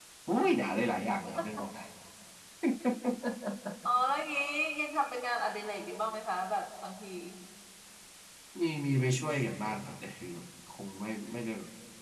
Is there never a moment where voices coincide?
Yes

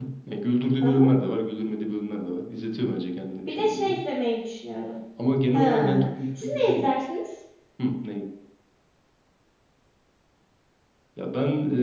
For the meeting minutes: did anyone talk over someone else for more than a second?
Yes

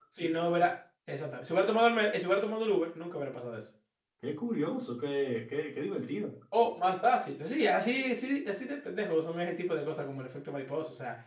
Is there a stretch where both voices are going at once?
No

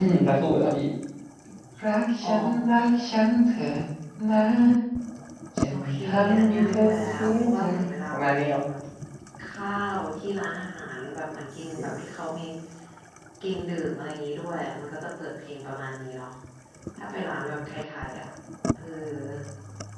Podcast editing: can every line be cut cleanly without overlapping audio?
No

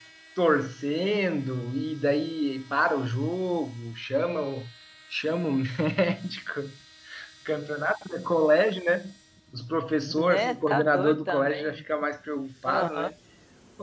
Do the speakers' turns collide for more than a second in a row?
Yes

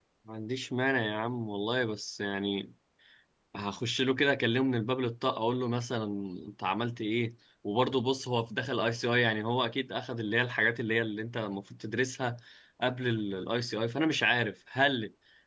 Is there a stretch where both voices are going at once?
No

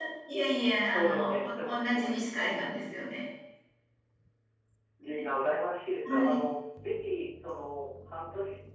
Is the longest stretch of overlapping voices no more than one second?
No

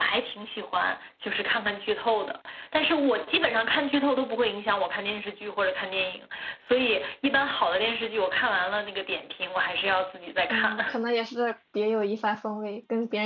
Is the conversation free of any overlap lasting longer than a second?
Yes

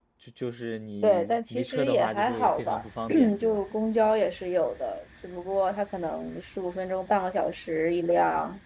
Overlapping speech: Yes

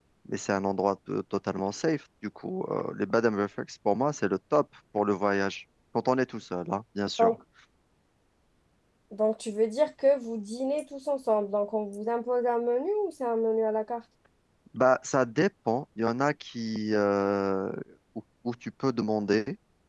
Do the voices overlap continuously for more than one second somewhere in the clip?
No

